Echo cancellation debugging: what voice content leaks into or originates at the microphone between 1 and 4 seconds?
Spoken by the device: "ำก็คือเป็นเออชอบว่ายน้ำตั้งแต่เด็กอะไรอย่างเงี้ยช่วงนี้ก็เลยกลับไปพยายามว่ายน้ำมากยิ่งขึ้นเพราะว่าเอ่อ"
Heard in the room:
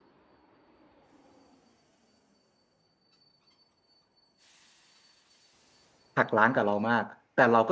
neither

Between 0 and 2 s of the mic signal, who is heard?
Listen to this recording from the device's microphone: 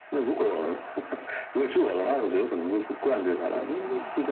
echo only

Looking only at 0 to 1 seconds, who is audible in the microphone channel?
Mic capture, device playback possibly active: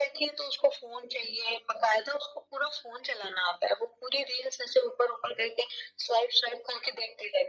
echo only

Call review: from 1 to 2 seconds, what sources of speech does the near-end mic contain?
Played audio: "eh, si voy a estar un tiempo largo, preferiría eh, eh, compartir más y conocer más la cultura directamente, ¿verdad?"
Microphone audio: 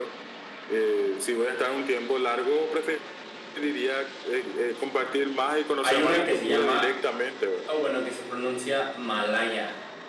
echo only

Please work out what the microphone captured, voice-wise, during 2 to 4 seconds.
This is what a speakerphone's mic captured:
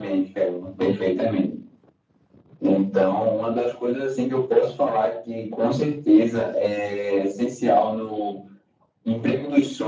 echo only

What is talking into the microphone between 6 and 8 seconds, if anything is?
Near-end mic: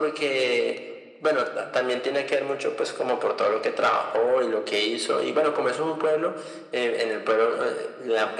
echo only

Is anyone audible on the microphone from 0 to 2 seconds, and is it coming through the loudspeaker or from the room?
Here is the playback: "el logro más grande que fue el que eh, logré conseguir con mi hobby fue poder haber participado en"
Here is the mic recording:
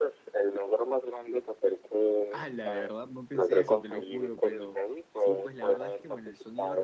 echo only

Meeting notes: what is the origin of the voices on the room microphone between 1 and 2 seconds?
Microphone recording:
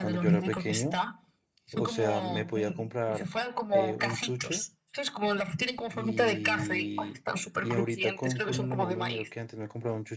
both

